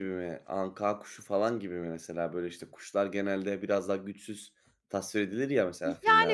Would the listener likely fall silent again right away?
No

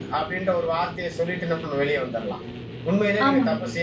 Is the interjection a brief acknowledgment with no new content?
Yes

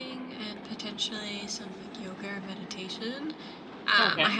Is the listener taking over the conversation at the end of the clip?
No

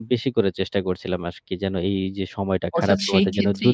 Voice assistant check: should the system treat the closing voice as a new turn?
Yes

